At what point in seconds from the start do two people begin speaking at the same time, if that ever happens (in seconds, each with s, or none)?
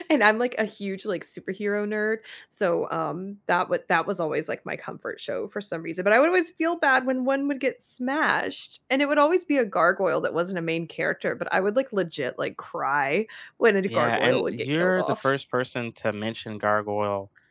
13.9 s